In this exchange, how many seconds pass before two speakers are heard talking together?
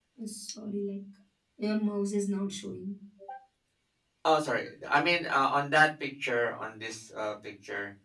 none

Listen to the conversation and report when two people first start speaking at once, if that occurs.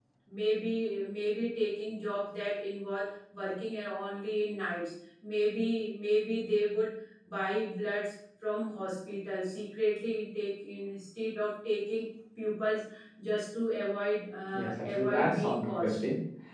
14.5 s

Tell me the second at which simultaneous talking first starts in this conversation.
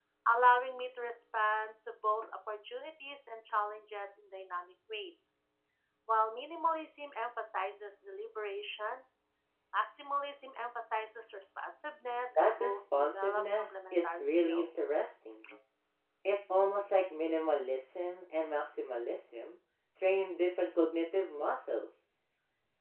12.4 s

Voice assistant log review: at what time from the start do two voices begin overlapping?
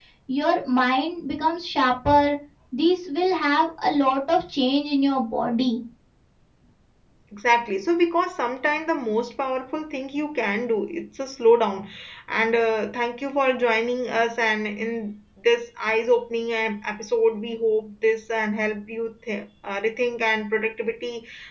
none

